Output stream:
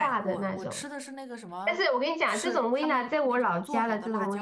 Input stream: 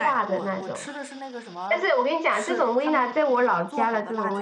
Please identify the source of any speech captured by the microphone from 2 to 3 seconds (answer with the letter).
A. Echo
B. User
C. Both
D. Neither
A